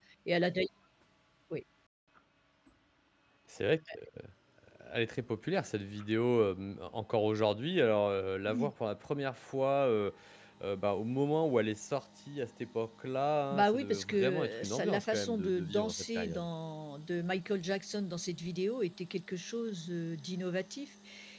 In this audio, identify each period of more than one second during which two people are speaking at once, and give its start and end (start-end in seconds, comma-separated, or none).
13.5-16.4